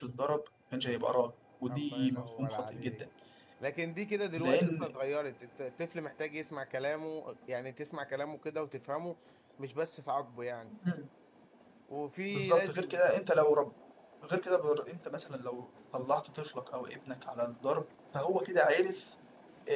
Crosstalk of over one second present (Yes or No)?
Yes